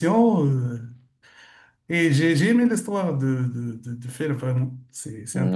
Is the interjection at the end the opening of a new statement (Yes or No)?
Yes